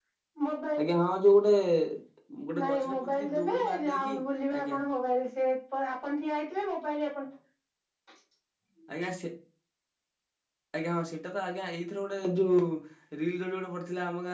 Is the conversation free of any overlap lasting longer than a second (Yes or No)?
No